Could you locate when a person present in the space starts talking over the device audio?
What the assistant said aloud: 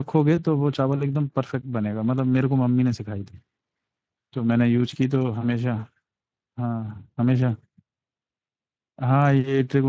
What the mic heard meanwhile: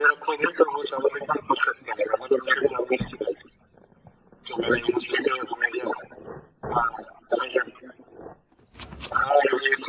none

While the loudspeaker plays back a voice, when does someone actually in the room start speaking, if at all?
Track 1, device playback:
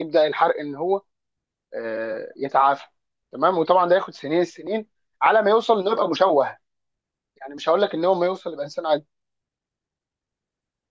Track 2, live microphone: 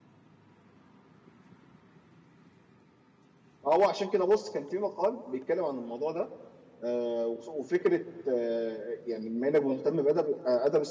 3.6 s

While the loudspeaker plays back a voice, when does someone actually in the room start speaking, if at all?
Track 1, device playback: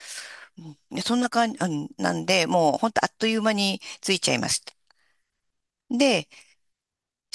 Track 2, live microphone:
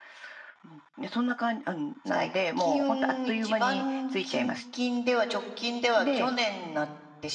2.0 s

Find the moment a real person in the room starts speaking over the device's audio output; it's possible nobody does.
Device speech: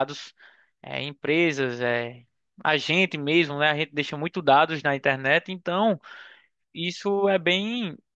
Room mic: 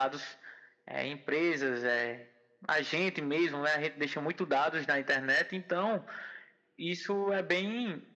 none

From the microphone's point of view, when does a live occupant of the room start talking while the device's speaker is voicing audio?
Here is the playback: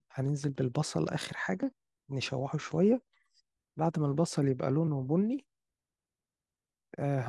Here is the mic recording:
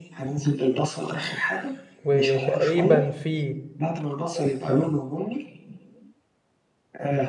2.0 s

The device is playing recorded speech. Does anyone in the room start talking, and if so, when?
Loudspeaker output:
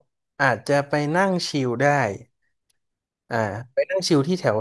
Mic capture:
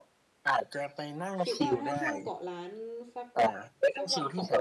1.4 s

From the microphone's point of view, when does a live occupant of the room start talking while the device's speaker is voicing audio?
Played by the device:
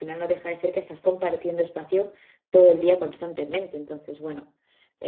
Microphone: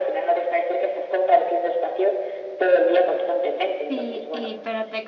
3.9 s

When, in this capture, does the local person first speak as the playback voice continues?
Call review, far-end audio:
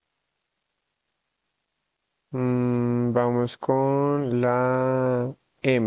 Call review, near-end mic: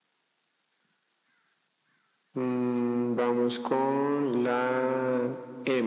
none

